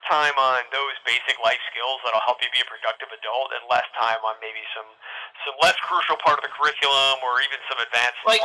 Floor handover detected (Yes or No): Yes